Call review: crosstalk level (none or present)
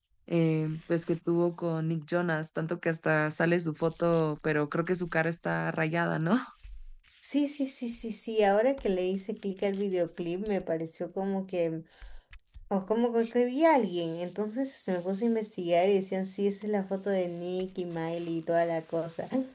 none